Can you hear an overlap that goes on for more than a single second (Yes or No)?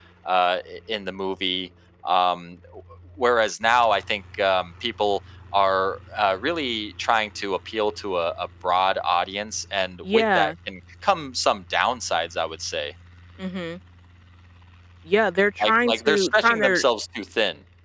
Yes